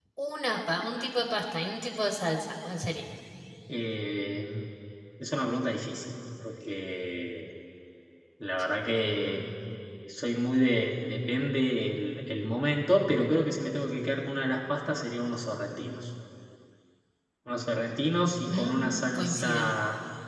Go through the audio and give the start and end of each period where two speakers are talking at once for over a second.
18.5-19.7

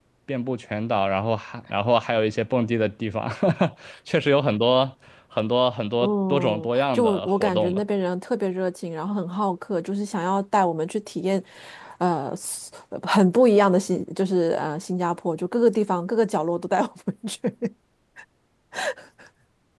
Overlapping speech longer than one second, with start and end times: 6.0-7.8

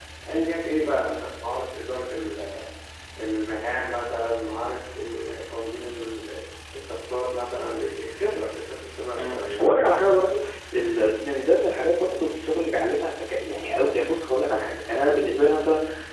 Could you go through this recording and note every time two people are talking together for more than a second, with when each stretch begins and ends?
9.2-10.5

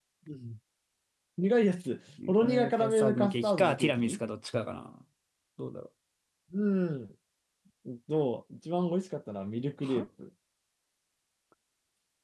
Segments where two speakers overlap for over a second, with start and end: 2.4-4.2

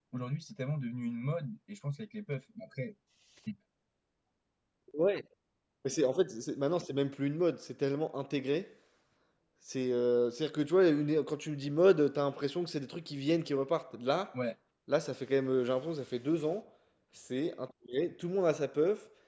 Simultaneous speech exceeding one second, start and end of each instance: none

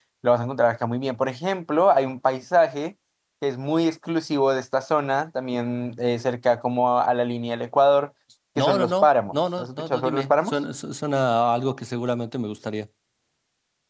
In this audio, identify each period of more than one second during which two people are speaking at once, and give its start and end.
8.6-10.6

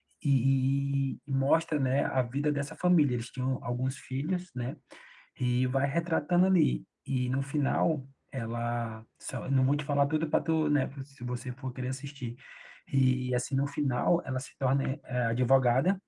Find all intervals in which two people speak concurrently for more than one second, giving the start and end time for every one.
none

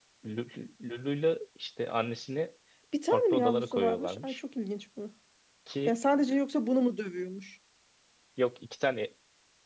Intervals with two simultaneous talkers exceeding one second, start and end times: 3.1-4.4

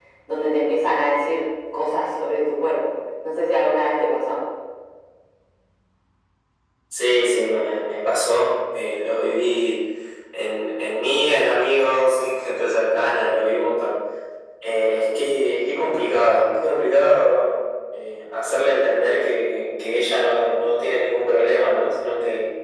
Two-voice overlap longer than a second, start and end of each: none

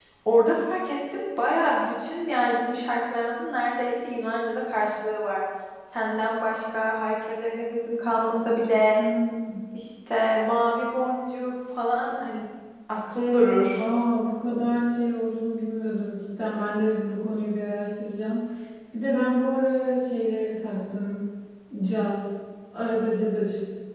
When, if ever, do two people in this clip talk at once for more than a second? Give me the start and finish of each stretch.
none

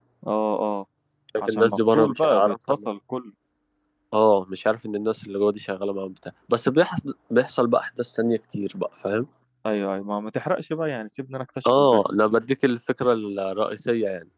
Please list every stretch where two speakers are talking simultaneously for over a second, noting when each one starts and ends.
1.5-2.7

